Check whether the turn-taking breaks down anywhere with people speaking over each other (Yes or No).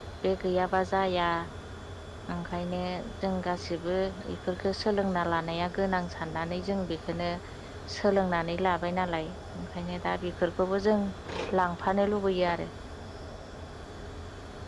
No